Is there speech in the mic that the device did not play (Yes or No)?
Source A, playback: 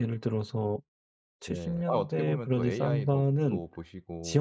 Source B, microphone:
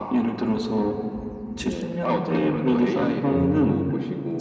Yes